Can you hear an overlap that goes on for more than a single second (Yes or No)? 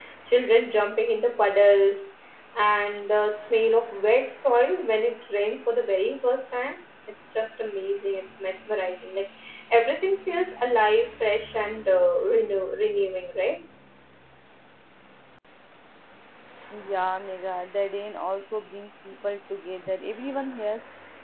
No